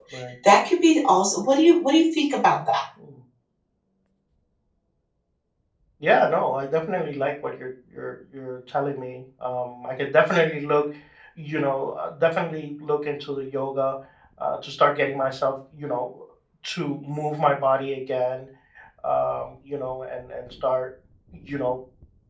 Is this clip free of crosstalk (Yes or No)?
Yes